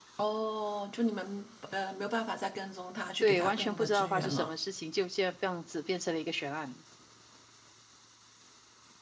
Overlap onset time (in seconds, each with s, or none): 3.2 s